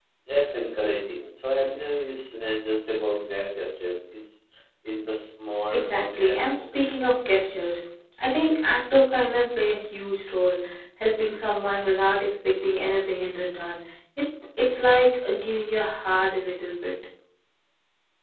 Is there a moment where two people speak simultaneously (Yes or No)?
Yes